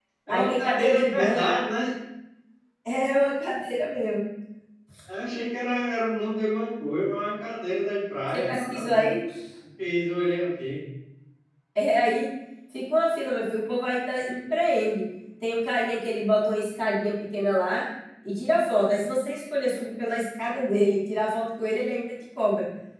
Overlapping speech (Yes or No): Yes